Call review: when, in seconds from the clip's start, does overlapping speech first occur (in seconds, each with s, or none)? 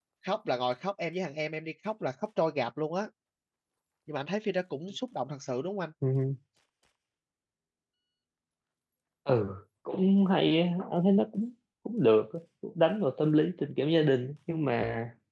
none